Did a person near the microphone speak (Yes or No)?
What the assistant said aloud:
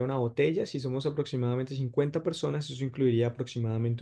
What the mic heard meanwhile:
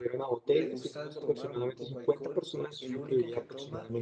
Yes